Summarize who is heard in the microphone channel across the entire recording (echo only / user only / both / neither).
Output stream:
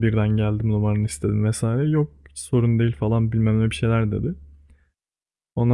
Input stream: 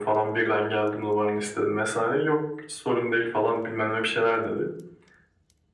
echo only